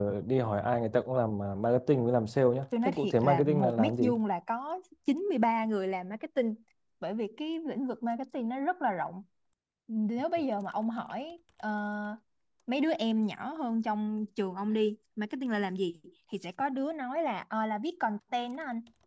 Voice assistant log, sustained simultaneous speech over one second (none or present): present